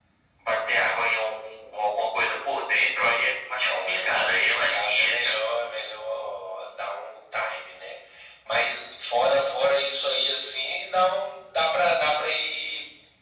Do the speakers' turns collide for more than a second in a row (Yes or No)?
Yes